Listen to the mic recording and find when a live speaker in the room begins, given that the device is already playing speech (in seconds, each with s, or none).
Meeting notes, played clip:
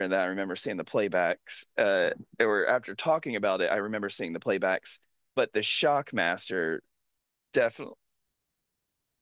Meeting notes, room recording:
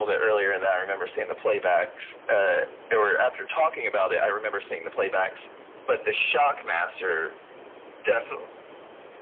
none